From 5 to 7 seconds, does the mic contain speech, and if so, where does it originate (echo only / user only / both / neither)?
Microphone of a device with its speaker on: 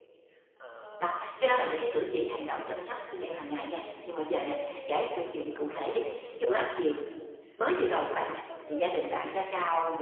both